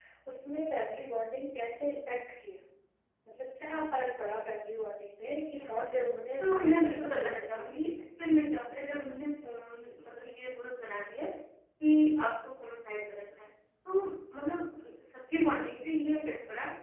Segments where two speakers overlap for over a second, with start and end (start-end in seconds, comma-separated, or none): 6.4-7.7